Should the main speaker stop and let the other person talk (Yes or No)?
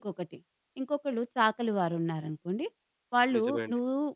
No